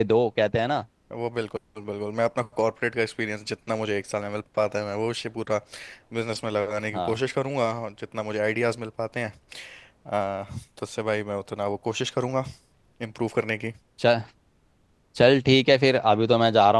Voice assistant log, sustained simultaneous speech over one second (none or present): none